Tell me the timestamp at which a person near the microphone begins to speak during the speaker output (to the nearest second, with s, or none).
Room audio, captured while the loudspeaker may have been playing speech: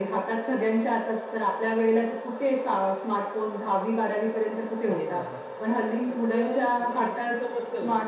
5 s